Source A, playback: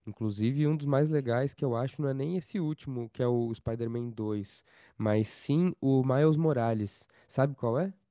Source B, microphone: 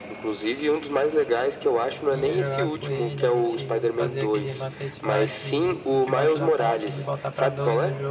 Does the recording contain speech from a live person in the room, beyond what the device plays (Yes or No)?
Yes